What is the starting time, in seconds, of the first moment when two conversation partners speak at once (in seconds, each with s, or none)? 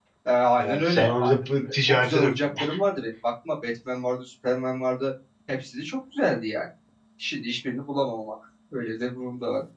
0.6 s